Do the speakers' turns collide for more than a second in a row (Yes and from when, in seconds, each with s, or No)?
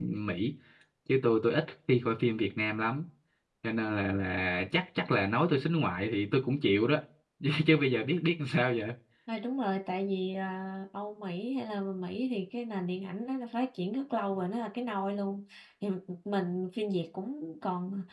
No